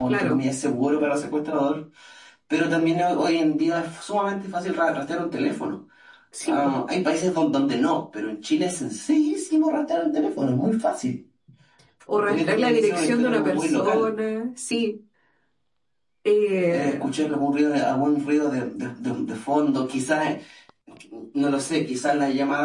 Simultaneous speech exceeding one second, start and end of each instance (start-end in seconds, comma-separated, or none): 12.3-14.1